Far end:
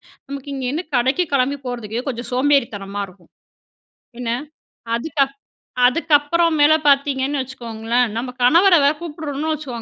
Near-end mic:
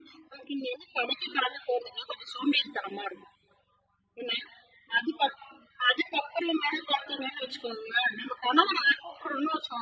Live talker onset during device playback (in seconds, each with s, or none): none